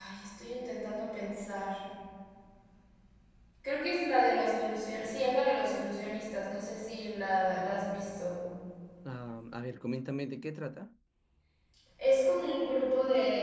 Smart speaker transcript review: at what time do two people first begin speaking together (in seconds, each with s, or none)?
none